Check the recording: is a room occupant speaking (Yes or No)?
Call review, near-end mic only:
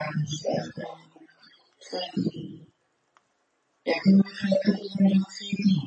No